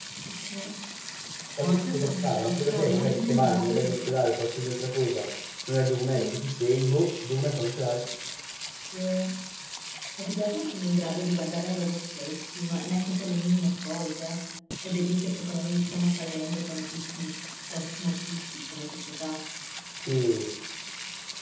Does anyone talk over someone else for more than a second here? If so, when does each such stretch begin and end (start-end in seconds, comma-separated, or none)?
1.6-3.9